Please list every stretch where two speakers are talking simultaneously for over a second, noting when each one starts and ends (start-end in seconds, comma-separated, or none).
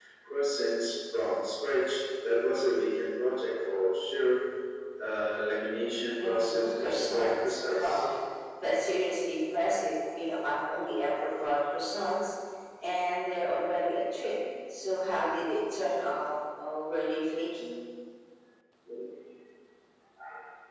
6.2-8.1